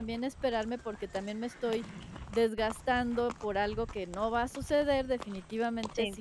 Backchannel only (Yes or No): Yes